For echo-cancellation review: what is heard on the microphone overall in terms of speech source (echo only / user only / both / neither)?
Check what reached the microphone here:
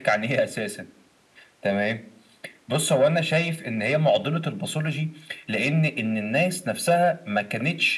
echo only